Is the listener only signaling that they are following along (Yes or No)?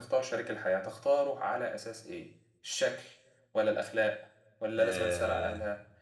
Yes